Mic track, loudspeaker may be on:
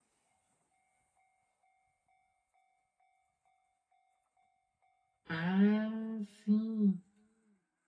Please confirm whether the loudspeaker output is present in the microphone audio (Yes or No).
No